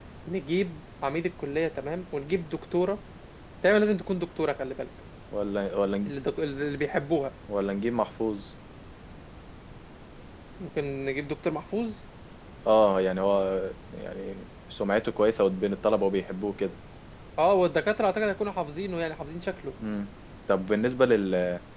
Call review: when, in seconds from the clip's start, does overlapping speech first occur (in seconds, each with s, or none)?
none